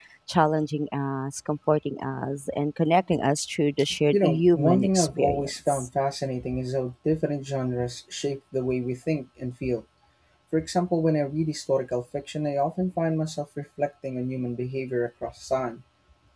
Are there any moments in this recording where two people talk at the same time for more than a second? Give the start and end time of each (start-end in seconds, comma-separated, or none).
4.1-5.9